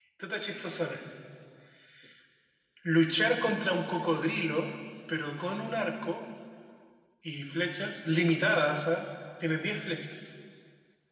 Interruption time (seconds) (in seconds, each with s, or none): none